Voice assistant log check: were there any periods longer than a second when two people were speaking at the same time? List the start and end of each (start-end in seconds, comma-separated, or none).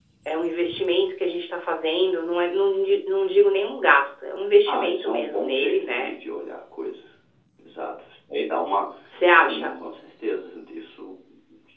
4.7-6.1